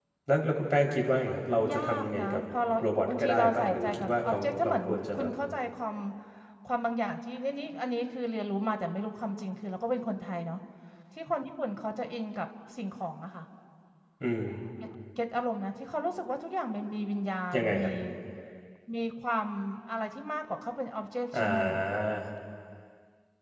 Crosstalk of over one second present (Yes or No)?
Yes